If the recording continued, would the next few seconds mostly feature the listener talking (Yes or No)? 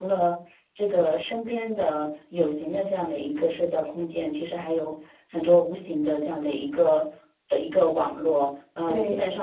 No